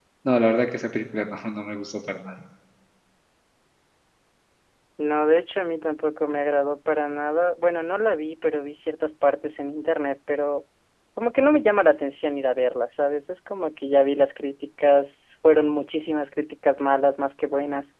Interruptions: none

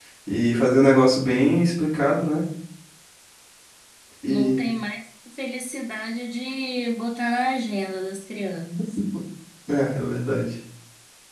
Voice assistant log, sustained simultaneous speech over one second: none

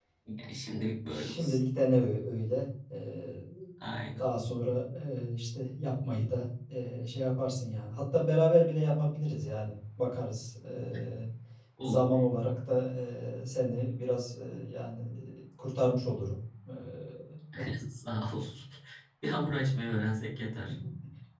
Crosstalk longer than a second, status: none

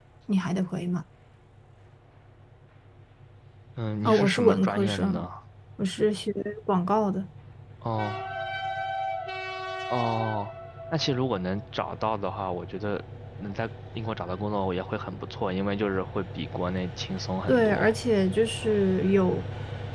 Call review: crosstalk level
present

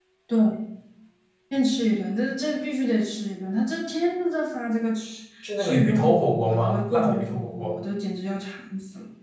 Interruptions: present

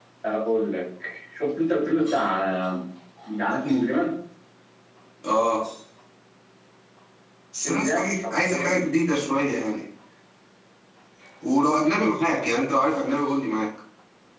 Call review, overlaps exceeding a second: present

